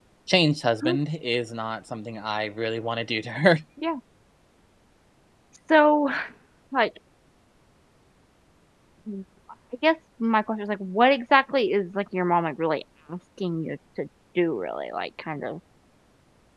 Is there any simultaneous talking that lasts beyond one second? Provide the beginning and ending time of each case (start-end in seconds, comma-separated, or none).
none